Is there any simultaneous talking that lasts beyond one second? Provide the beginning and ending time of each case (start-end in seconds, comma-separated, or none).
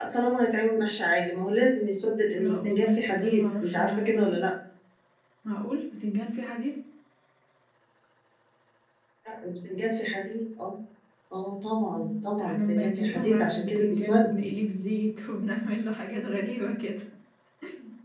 2.4-4.4, 11.9-14.3